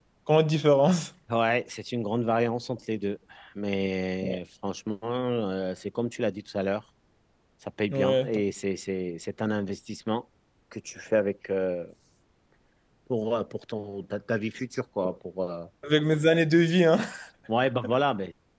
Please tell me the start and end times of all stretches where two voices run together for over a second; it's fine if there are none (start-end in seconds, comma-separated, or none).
none